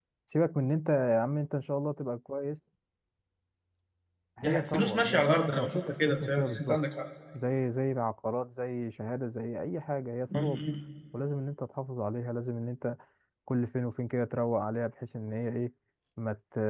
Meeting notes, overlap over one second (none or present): present